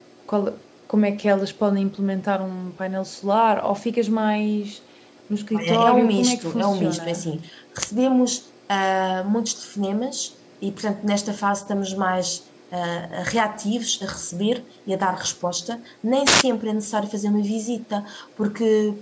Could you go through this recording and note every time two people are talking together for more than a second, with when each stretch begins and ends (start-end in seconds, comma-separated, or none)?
5.5-7.2